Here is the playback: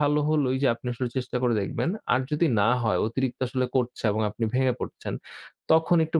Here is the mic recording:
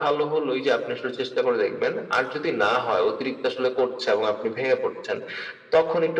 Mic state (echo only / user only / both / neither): echo only